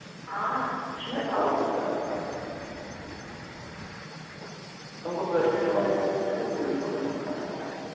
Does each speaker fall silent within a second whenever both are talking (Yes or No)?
No